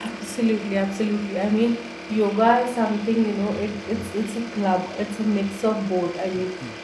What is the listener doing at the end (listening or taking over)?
listening